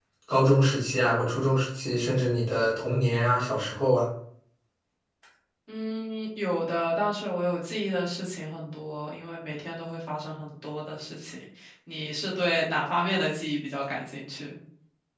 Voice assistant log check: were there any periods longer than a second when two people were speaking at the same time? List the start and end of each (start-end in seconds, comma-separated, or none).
none